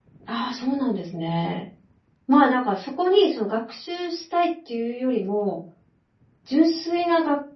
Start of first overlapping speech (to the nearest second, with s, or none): none